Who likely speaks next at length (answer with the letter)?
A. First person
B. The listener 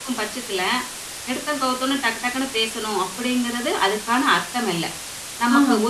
A